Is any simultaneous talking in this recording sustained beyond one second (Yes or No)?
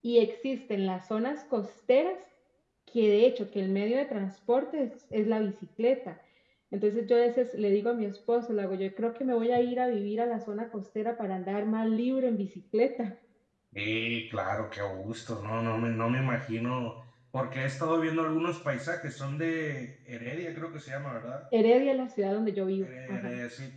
No